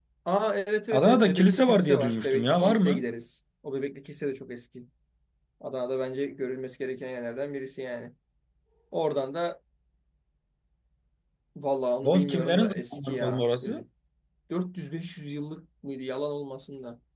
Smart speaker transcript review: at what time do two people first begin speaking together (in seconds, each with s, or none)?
0.9 s